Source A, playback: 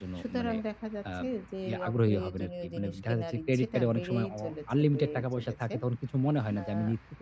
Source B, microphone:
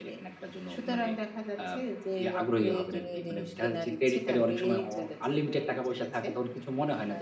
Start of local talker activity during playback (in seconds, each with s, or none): none